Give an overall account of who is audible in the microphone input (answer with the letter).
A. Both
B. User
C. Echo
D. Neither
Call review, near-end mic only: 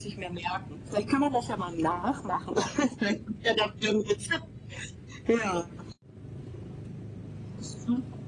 C